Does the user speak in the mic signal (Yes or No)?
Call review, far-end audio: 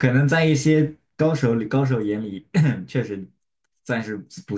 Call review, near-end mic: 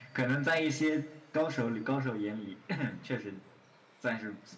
No